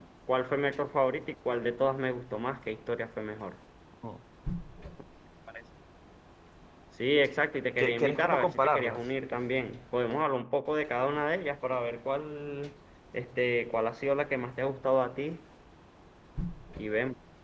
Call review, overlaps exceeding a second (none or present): present